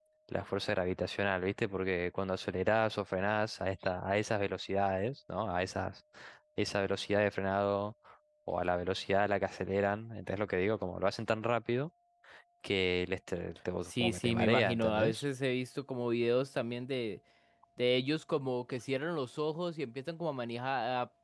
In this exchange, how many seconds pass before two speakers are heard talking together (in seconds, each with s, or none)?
13.8 s